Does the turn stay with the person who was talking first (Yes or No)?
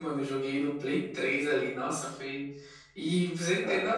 Yes